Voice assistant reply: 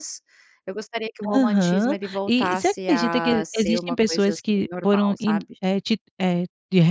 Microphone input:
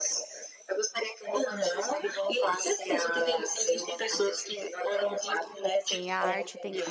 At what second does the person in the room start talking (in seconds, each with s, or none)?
5.3 s